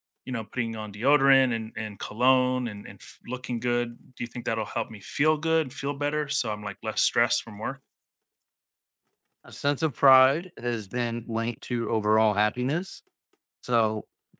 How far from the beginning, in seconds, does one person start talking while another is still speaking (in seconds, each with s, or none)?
none